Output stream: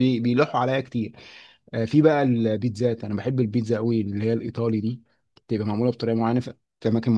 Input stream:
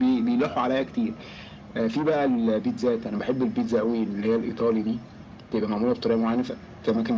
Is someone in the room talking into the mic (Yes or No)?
No